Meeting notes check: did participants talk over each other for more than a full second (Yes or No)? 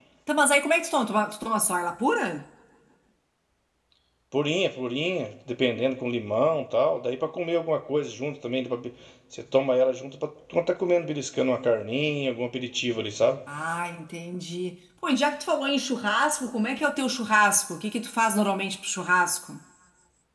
No